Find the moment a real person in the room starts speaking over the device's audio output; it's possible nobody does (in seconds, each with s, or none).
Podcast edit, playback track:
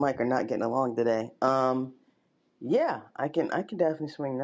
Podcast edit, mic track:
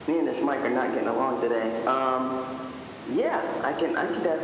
none